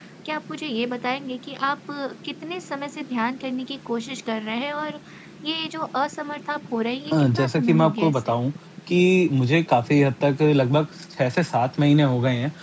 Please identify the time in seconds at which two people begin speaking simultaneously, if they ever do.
7 s

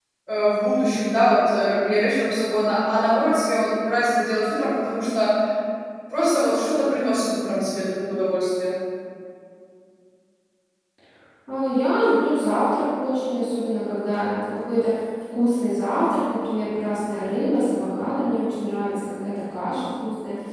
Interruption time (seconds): none

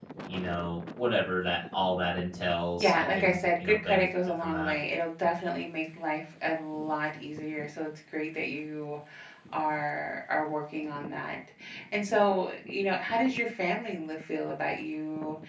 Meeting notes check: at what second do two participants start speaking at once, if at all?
3 s

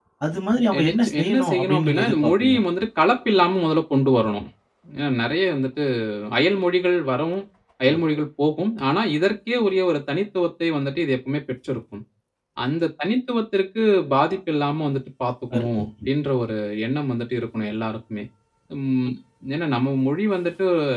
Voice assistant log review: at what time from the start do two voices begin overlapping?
1 s

